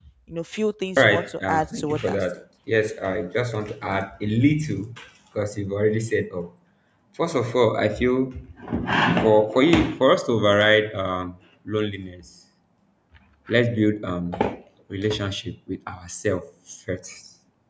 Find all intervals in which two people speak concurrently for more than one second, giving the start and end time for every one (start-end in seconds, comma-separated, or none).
1.0-2.2